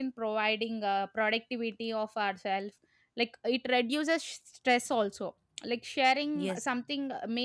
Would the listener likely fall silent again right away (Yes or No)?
Yes